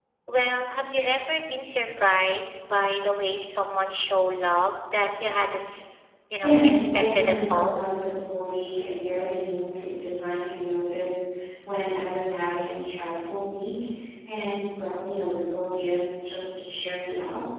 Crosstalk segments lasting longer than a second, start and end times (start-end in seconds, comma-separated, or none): 6.4-7.8